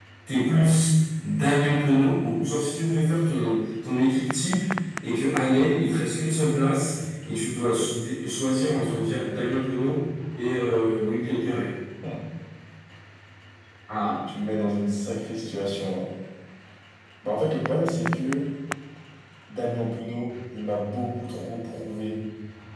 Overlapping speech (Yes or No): No